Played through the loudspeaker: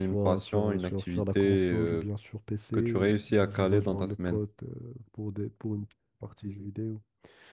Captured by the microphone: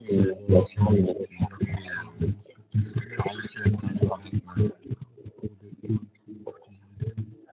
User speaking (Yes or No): No